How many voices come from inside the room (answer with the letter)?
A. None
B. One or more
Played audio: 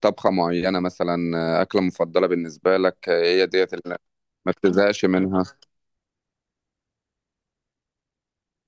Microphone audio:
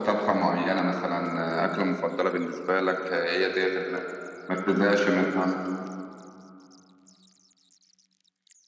A